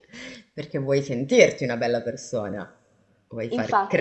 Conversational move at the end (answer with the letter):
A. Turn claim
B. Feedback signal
A